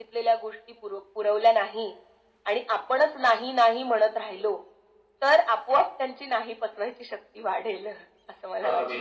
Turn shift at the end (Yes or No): Yes